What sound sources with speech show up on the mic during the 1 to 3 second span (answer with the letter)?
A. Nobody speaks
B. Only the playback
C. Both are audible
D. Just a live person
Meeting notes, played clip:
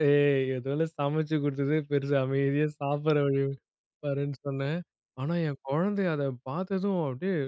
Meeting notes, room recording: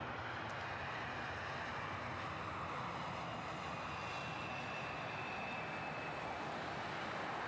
A